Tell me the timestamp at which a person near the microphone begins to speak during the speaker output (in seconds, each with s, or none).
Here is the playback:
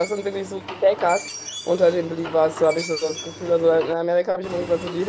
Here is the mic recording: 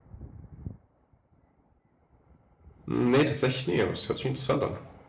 2.9 s